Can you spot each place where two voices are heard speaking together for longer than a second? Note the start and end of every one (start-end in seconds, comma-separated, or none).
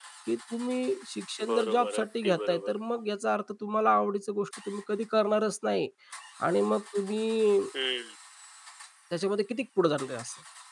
1.5-2.7